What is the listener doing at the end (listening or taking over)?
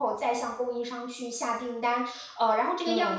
listening